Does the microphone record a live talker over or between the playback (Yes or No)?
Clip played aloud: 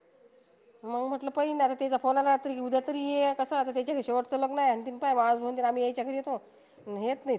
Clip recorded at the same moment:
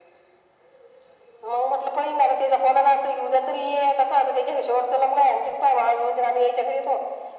No